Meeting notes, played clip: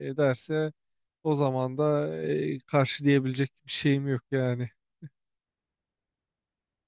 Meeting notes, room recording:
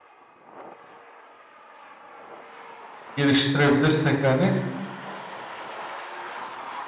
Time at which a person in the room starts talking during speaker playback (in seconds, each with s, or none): 3.2 s